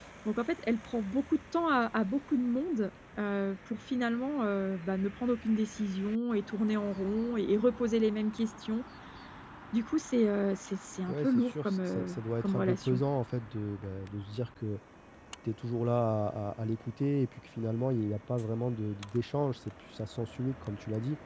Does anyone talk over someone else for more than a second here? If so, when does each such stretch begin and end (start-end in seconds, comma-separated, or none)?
11.1-13.0